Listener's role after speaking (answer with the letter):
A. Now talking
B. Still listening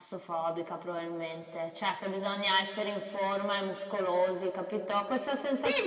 A